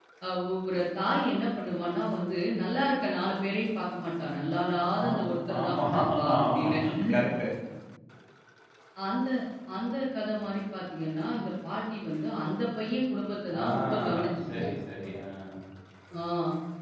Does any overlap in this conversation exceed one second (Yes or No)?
Yes